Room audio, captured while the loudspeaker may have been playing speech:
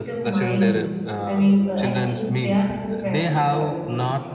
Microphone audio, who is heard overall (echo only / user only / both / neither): both